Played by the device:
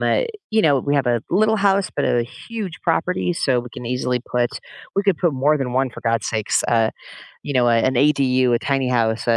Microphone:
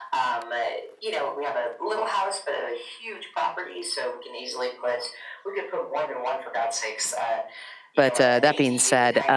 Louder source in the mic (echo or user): user